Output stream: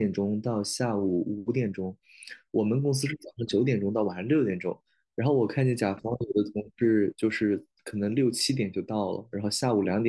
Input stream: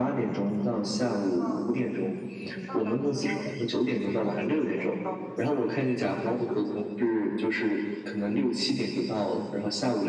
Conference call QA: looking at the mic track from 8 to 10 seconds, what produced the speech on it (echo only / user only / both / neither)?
echo only